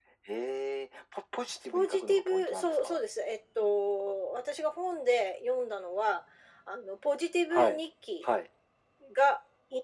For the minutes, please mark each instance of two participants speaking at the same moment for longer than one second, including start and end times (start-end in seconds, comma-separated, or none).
1.7-3.0